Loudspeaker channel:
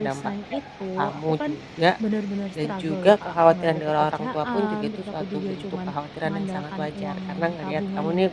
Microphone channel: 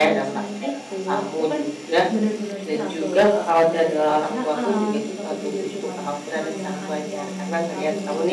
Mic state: echo only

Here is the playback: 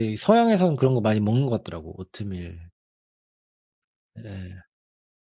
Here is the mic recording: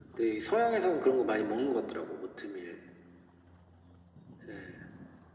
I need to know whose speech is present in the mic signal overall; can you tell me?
echo only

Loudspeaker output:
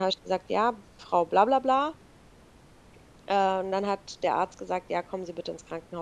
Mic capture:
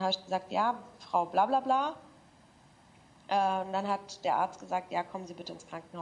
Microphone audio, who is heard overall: echo only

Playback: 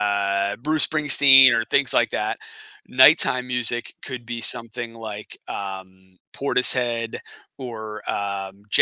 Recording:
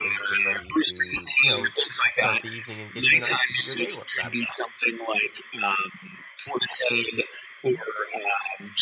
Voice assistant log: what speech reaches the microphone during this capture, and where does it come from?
both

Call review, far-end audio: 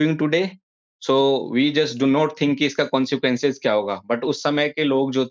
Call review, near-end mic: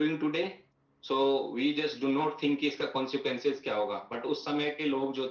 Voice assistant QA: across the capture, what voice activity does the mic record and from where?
echo only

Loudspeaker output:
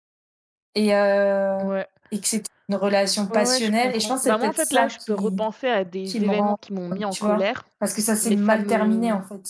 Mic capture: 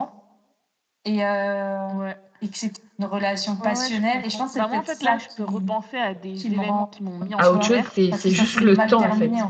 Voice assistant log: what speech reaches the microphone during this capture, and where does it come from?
both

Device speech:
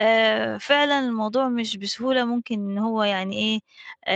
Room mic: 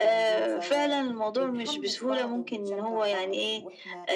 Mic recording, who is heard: both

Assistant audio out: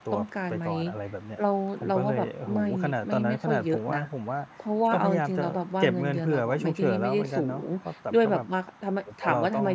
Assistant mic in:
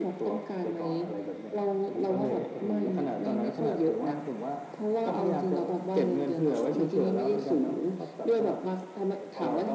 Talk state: echo only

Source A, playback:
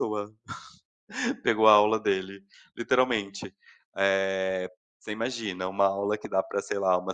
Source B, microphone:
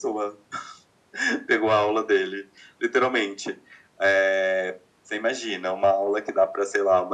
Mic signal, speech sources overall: echo only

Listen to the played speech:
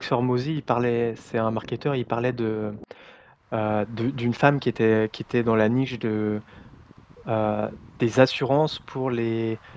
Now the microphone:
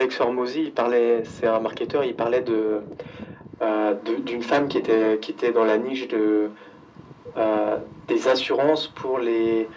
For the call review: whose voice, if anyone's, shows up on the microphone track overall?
echo only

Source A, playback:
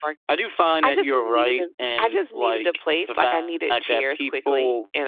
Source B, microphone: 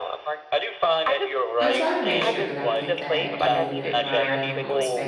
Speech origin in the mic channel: both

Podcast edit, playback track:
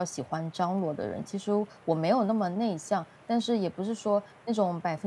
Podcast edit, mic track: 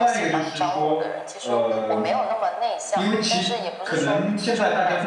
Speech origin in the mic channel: both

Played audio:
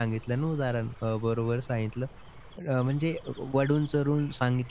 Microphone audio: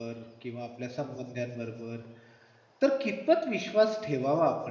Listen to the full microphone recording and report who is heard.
user only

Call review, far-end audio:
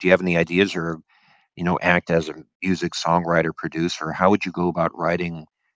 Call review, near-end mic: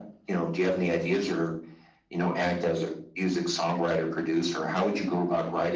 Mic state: echo only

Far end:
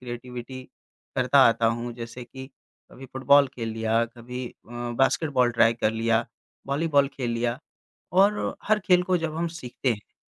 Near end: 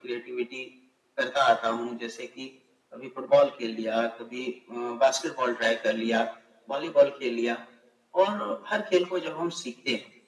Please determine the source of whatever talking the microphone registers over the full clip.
echo only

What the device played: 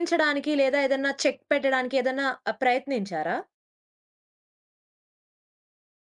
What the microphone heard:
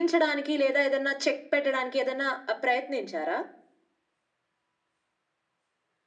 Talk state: echo only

